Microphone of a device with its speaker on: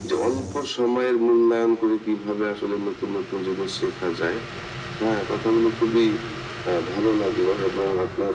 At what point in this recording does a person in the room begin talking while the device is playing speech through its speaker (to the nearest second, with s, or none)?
none